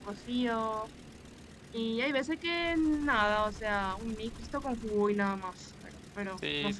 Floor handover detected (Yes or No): Yes